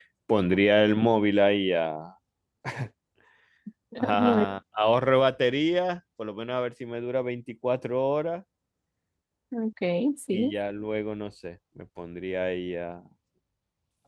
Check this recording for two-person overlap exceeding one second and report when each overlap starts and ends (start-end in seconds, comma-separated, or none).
none